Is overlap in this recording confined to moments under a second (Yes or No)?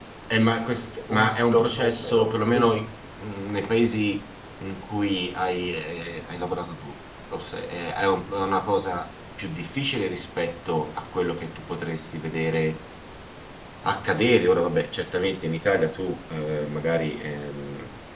No